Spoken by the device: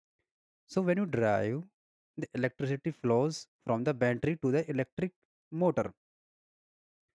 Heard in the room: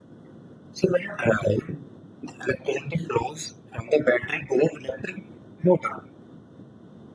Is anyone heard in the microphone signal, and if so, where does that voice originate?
echo only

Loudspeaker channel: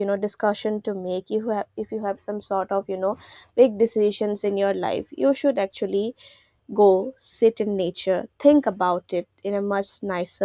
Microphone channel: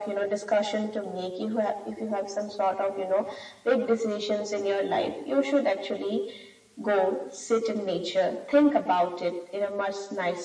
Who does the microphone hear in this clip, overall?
echo only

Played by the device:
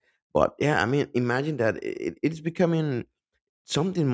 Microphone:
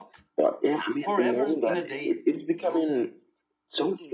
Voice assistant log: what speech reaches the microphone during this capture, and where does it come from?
both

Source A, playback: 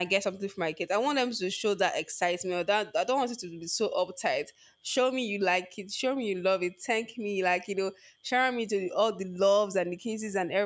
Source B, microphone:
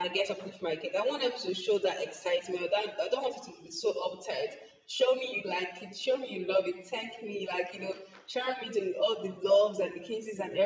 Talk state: echo only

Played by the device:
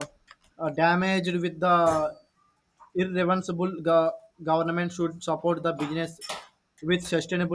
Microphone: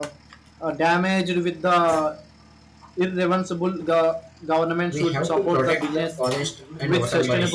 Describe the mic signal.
both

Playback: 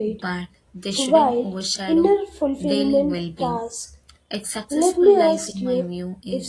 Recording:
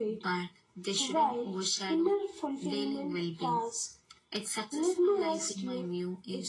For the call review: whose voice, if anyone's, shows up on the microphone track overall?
echo only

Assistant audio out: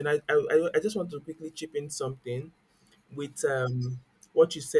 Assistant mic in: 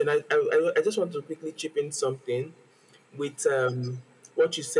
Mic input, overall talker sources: echo only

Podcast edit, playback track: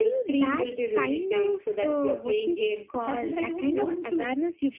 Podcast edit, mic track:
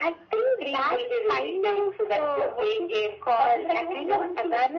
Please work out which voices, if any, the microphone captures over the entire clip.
echo only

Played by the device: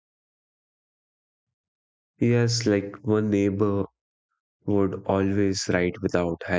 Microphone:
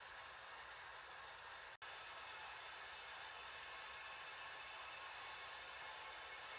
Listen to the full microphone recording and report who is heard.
neither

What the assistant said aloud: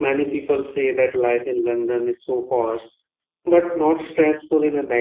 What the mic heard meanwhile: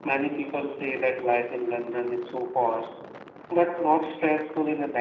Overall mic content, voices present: echo only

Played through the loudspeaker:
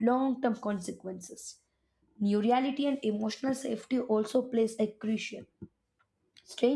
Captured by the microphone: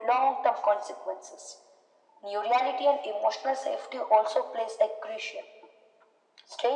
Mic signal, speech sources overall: echo only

